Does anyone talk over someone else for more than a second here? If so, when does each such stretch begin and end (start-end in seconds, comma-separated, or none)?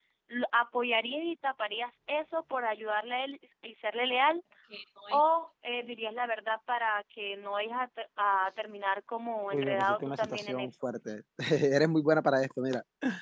9.5-10.7